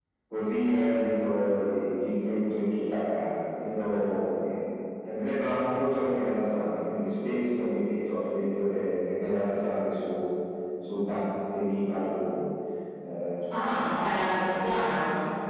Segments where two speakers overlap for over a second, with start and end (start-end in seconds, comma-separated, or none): none